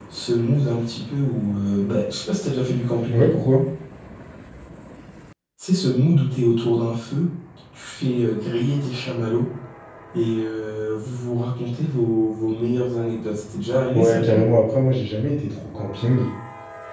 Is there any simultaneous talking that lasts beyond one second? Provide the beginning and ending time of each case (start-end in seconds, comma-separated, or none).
none